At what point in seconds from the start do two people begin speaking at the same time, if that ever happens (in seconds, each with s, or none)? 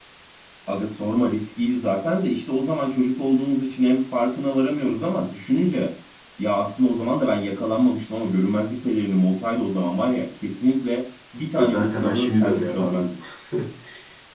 11.6 s